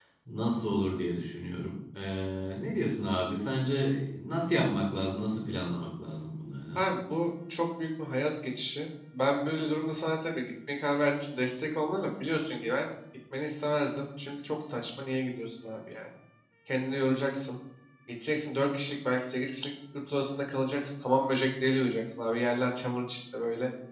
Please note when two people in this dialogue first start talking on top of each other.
none

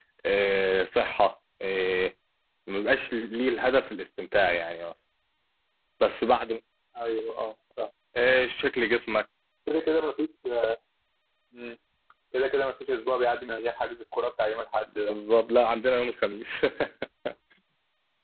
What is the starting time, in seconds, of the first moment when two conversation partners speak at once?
none

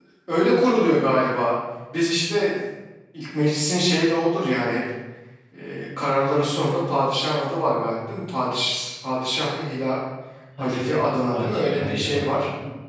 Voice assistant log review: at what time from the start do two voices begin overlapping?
10.6 s

